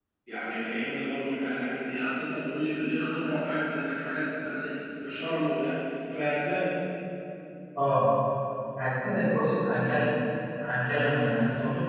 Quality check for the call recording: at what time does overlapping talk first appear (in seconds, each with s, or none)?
none